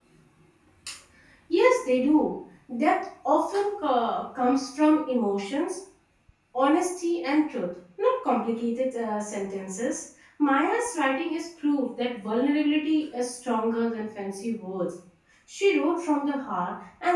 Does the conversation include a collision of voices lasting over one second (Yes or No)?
No